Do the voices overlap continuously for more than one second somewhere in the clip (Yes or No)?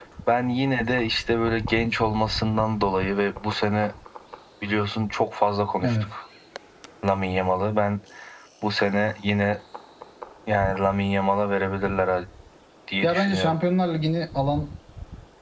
No